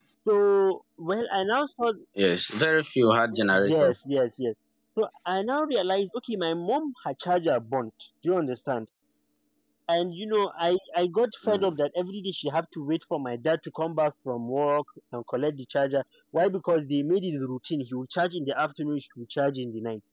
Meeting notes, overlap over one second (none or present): none